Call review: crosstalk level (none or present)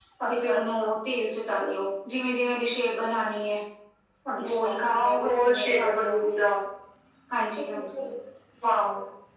present